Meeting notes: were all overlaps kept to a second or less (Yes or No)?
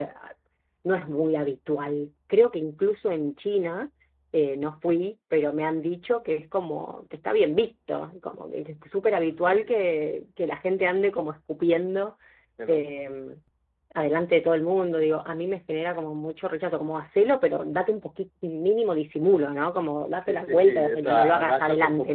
No